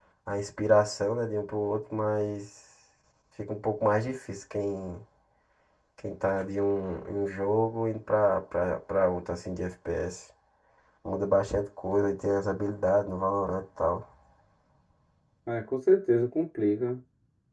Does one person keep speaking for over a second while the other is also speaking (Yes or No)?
No